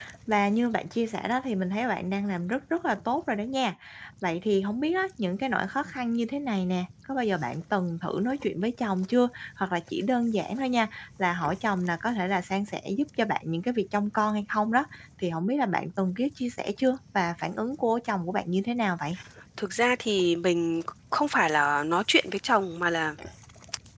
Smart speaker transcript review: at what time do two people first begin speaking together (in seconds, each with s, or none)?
none